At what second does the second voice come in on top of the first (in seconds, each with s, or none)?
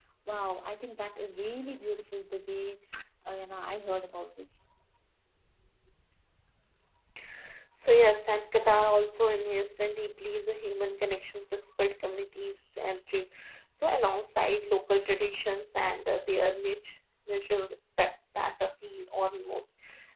none